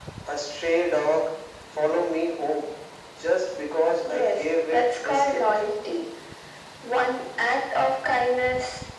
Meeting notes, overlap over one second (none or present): present